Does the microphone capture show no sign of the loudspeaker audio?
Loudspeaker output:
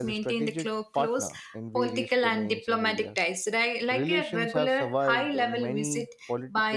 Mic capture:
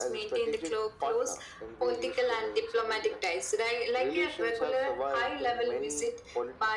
No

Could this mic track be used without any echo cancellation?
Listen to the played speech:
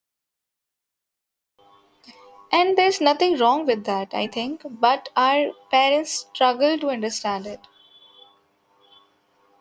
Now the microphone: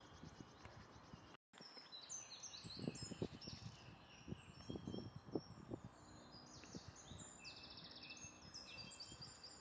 Yes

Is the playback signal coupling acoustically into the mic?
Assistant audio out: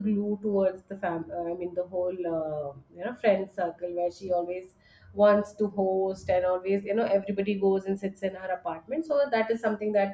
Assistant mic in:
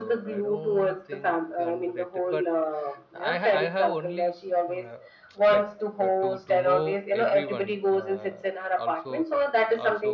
Yes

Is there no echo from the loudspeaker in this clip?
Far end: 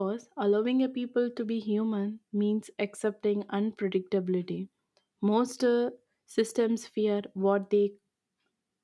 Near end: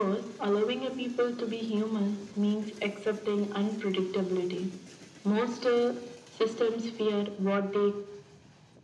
No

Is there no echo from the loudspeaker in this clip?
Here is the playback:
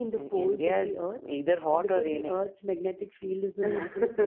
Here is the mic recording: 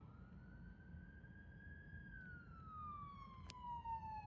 Yes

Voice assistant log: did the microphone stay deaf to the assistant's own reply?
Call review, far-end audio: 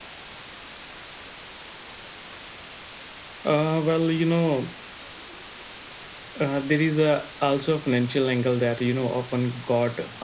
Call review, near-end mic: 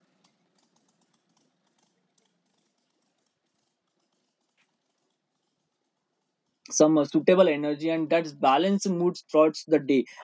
Yes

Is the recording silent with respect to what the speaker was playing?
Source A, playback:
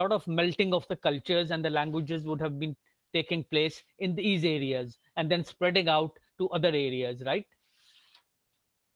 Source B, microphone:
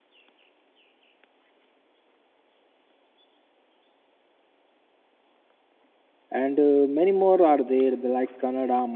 Yes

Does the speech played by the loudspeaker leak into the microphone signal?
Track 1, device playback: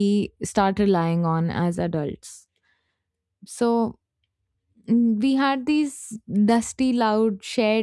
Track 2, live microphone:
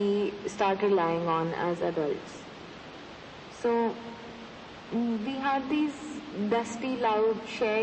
Yes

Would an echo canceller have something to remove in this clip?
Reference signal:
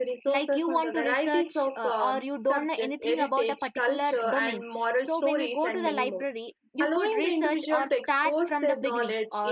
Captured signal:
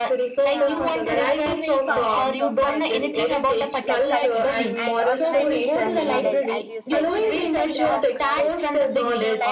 Yes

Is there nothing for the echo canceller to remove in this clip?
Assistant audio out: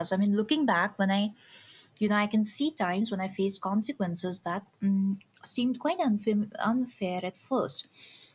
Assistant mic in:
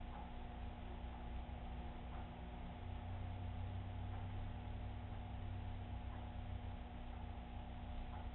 Yes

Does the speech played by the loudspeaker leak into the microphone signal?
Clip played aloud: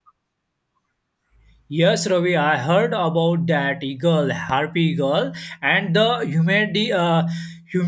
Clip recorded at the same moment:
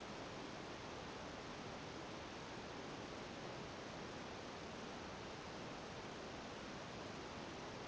No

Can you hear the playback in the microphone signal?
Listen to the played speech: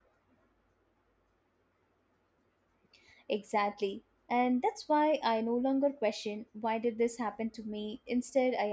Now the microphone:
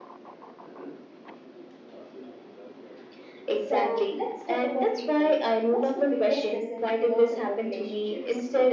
Yes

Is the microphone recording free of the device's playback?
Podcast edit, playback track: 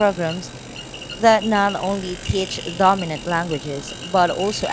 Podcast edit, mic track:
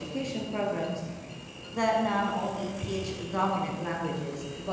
No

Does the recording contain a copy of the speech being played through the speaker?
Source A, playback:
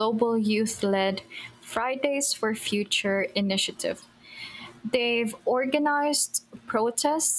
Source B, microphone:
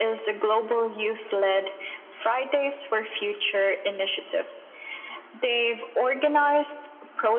Yes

